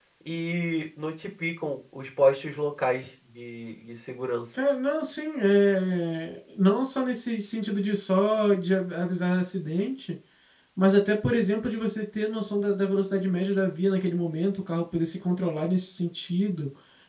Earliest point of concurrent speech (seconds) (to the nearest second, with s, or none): none